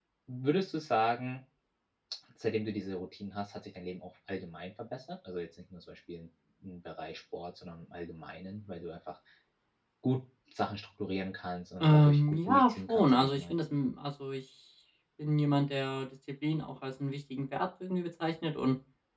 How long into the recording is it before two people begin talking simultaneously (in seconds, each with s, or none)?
11.8 s